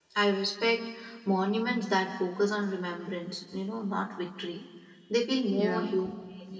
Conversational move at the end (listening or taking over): listening